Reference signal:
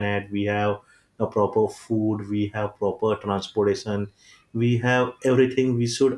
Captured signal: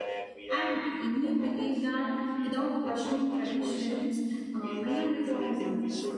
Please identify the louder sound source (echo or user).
user